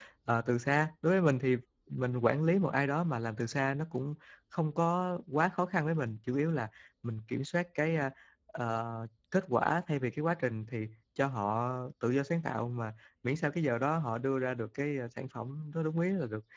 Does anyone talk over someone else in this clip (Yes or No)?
No